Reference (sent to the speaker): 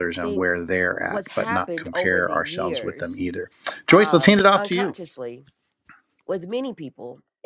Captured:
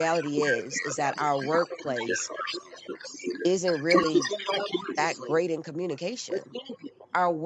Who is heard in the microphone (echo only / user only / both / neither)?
both